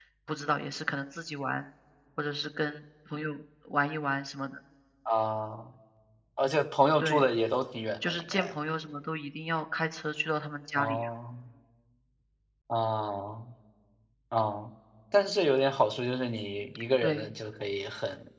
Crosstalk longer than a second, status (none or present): none